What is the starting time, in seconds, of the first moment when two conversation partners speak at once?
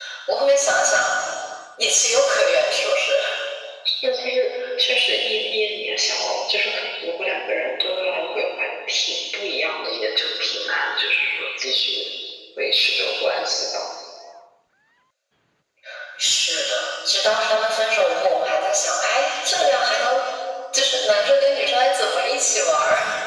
none

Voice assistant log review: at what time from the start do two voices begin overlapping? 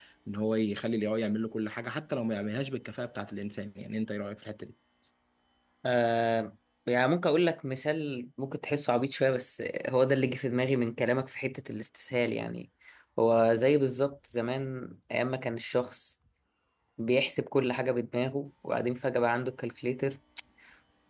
none

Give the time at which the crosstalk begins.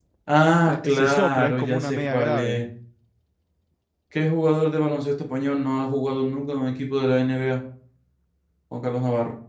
0.6 s

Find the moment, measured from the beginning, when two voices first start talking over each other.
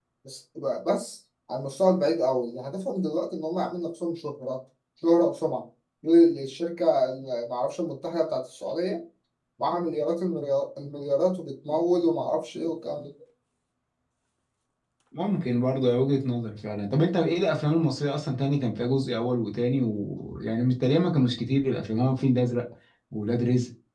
none

